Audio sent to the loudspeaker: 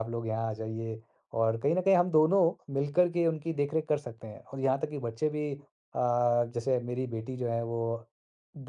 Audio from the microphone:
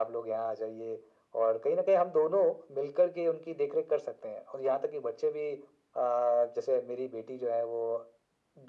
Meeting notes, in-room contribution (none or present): none